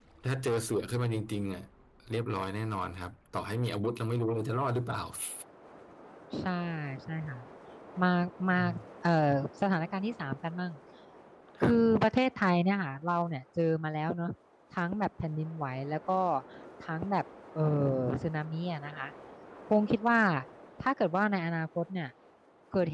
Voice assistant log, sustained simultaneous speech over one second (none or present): none